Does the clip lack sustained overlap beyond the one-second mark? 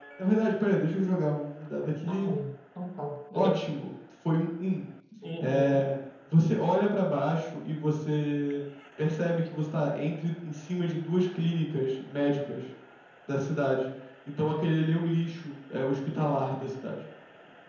Yes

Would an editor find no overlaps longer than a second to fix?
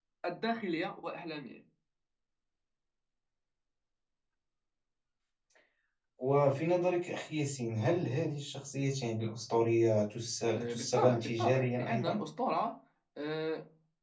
No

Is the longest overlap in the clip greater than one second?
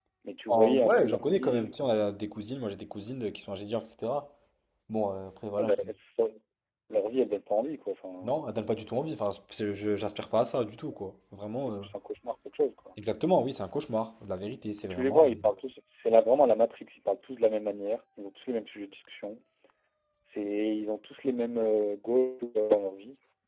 Yes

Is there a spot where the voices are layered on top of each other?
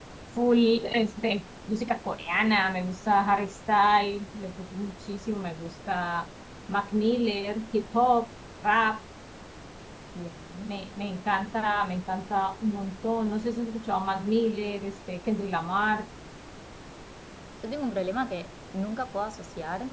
No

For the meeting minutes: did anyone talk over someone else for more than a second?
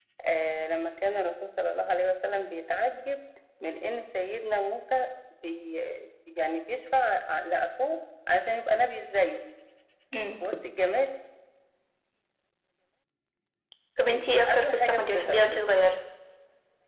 Yes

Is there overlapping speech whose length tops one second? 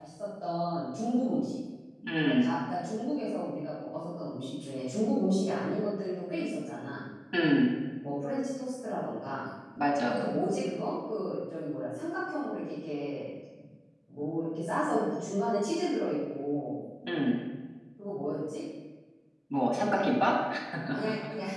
No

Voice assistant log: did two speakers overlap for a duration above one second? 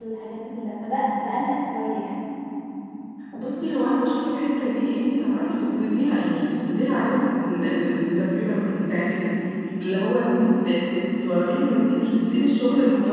No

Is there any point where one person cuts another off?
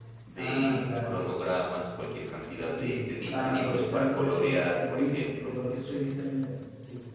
Yes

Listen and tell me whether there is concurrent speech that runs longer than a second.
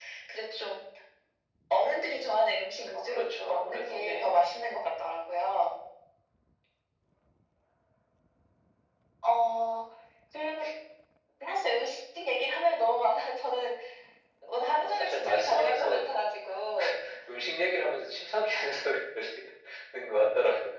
Yes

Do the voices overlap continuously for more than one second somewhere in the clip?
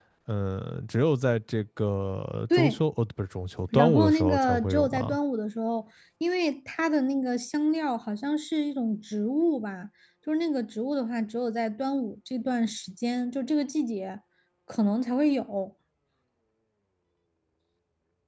Yes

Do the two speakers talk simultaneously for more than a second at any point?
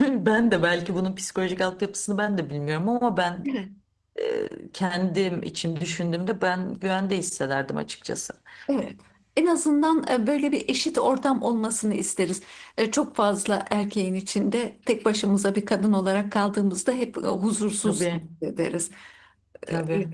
No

